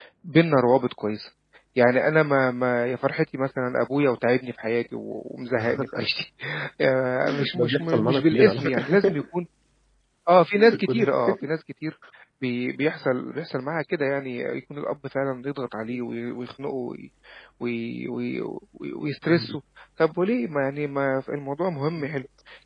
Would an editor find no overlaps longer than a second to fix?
No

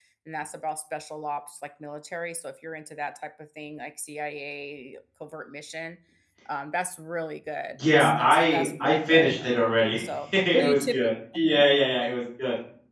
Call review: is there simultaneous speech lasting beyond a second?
Yes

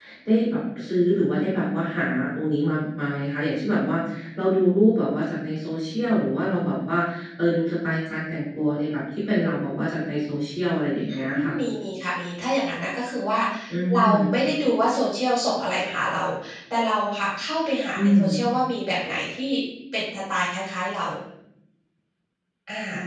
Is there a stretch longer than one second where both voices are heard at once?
No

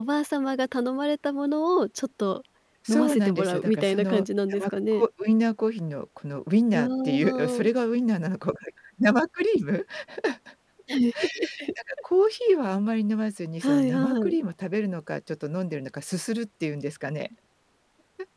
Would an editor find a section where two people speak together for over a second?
Yes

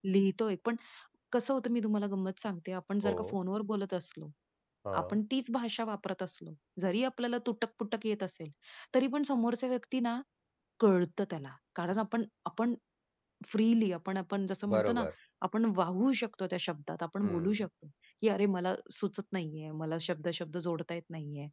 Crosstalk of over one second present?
No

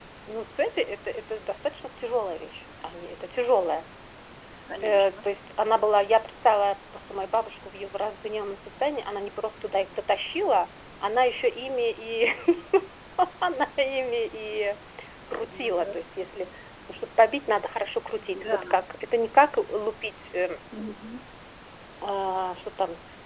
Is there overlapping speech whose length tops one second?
No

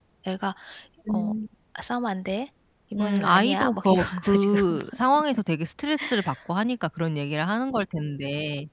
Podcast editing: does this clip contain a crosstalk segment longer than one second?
Yes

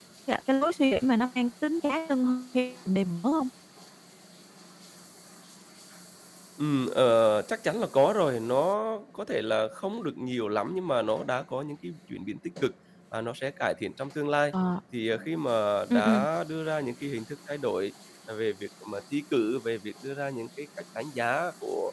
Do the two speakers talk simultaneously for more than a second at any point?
No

